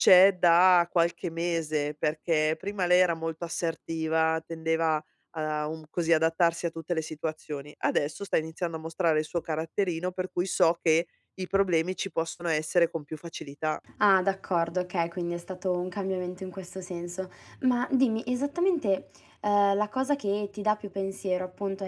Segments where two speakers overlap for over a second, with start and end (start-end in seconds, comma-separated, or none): none